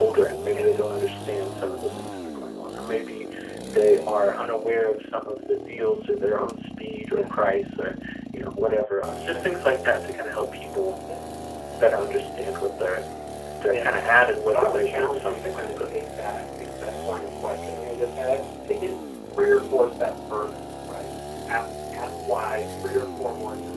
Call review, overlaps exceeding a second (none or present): present